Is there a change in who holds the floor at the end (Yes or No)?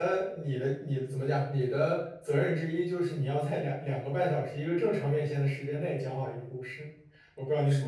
Yes